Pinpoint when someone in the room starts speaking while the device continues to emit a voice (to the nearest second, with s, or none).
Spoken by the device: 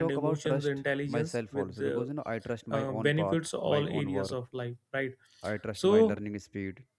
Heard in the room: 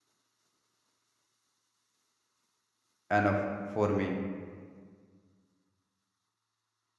3 s